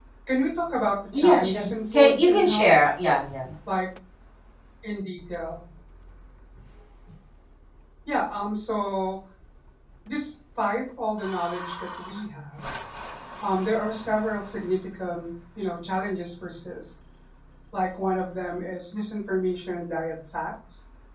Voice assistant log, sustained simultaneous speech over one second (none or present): present